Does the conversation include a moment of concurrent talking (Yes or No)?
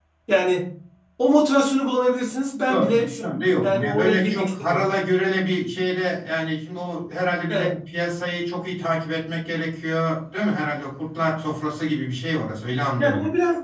Yes